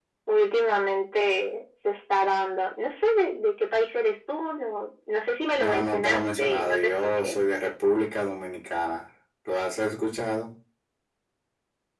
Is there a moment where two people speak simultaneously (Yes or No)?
Yes